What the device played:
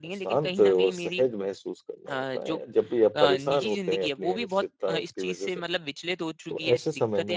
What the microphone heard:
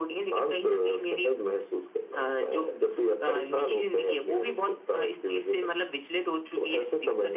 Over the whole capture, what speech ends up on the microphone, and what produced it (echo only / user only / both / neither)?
echo only